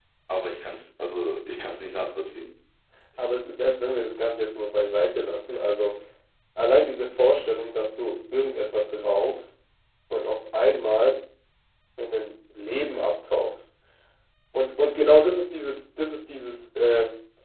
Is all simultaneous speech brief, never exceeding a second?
Yes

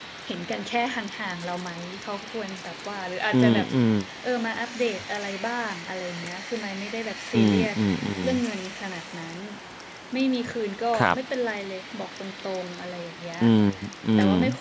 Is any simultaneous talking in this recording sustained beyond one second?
No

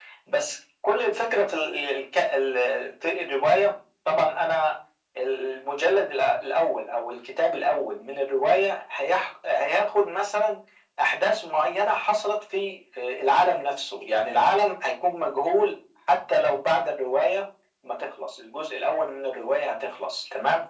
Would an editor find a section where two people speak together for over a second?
No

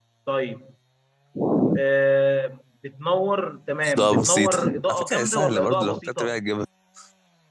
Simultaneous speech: Yes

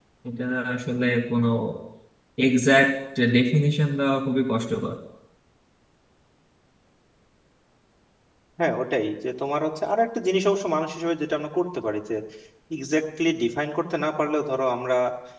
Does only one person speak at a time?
Yes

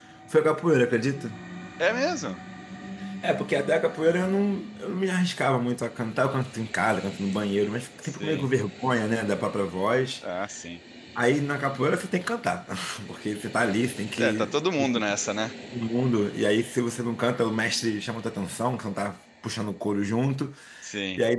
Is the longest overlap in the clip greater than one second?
No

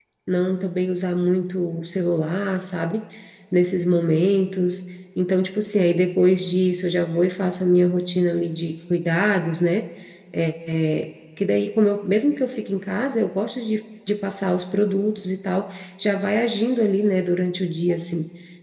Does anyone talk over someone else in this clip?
No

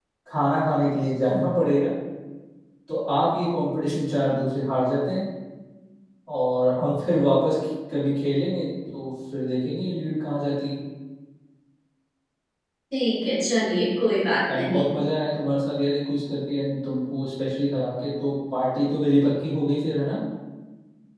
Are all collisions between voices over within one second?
Yes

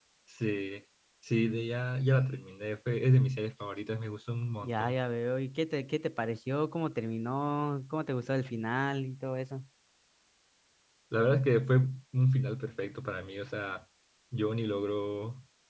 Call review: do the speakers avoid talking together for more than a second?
Yes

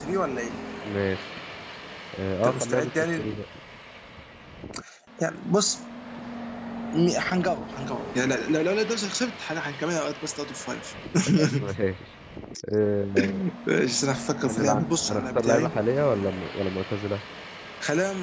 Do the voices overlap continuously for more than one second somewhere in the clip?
Yes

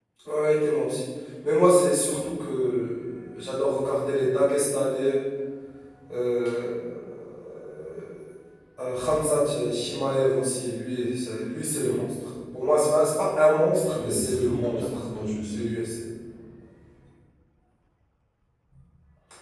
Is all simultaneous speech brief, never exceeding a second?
No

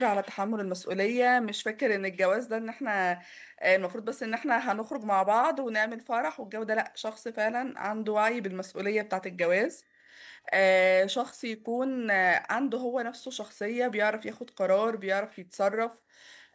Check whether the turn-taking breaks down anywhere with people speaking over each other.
No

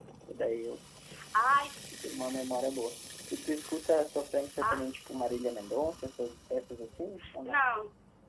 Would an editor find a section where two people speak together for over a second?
No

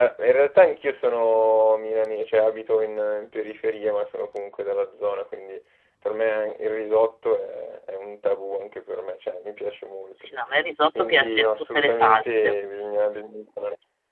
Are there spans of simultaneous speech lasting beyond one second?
Yes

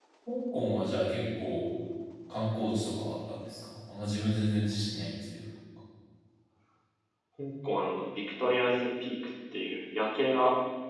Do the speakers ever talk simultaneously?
No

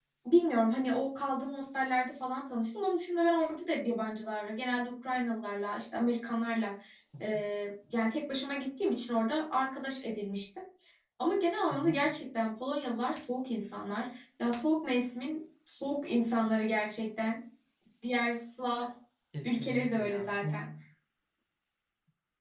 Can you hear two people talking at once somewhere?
Yes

